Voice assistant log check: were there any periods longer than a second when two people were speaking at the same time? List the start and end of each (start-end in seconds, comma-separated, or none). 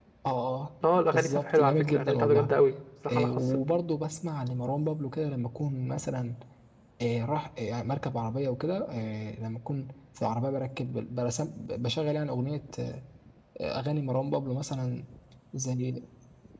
1.1-2.5